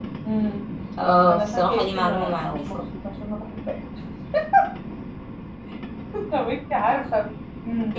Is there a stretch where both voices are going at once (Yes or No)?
Yes